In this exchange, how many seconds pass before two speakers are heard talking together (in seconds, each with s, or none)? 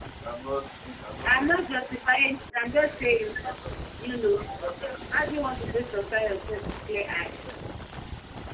1.2 s